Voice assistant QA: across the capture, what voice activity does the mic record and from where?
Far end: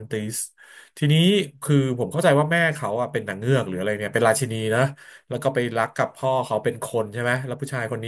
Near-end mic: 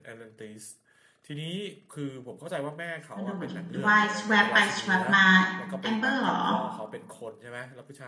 both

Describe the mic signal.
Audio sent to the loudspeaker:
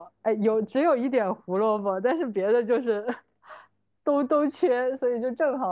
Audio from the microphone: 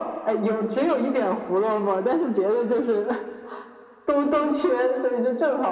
echo only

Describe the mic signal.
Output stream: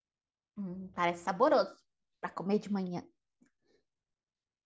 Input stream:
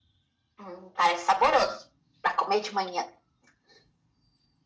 echo only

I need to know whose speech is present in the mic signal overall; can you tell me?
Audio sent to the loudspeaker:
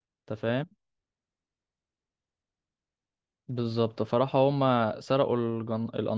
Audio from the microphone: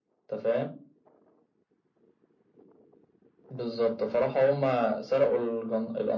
echo only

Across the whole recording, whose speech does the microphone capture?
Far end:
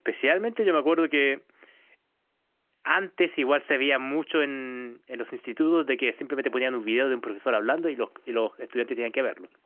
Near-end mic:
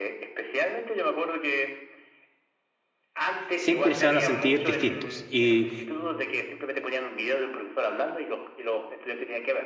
both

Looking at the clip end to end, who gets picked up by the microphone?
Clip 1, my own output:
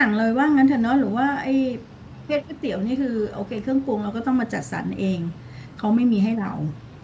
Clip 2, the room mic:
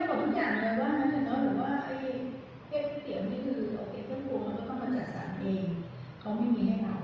echo only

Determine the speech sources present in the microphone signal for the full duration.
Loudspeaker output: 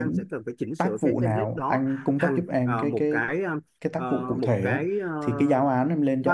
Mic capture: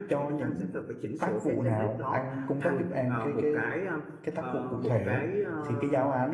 echo only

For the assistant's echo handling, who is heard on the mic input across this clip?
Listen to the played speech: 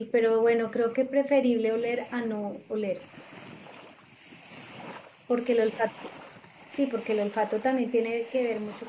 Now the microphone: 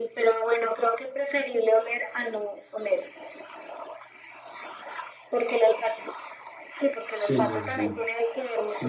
both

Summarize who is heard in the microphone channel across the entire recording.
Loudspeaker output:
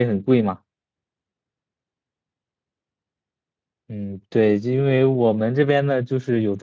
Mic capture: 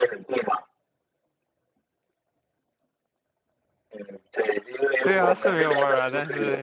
both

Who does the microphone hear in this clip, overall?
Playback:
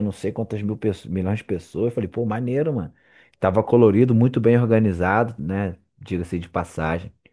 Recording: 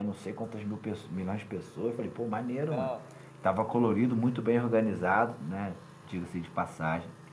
both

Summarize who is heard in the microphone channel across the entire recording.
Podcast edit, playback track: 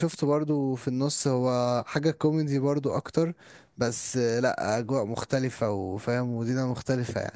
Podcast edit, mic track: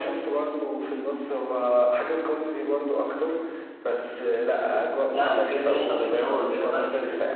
both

